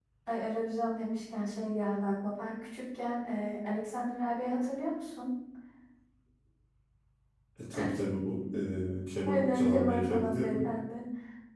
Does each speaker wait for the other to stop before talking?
No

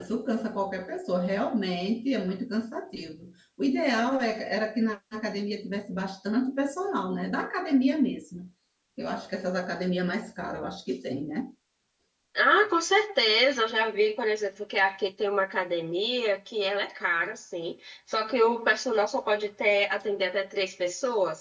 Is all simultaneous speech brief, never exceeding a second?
Yes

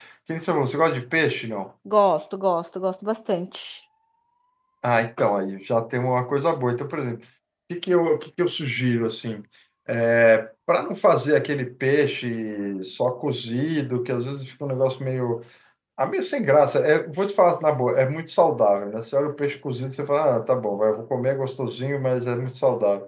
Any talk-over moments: No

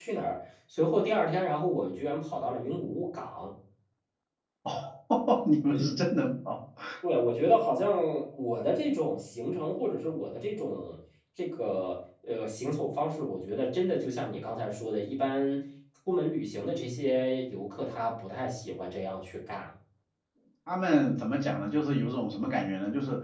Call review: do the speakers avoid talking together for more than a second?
Yes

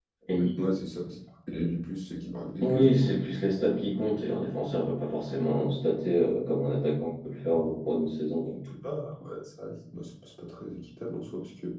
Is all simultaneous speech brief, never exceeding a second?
Yes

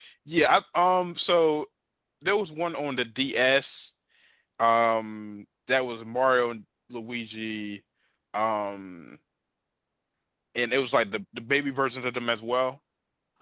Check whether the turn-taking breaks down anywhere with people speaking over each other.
No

